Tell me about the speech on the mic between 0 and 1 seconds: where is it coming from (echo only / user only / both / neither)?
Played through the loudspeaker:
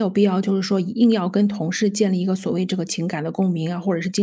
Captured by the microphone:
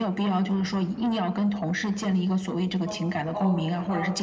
echo only